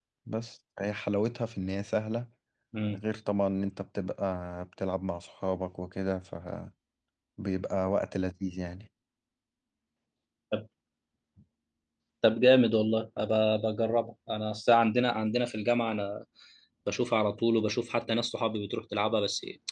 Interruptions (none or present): none